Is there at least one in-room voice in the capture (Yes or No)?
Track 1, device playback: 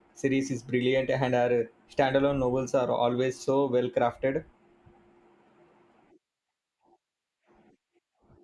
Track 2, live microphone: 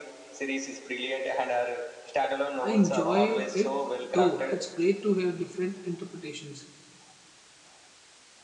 Yes